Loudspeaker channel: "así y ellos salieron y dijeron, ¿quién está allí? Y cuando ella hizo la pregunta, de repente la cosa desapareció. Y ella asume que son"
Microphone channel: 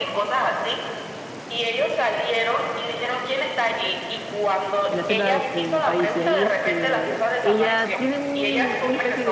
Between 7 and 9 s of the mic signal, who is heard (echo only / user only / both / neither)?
both